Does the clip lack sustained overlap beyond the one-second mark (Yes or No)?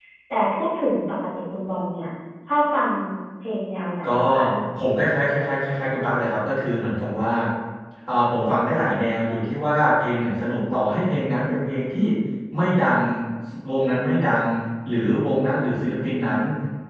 Yes